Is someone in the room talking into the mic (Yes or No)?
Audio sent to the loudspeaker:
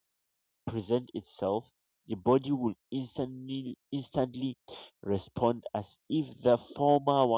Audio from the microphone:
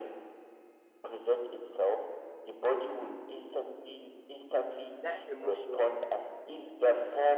Yes